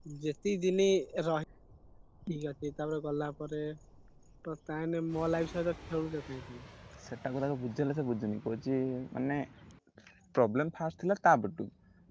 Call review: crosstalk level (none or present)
none